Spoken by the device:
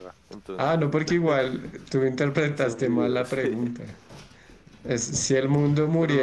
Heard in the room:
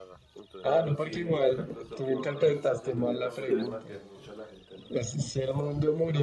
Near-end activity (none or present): present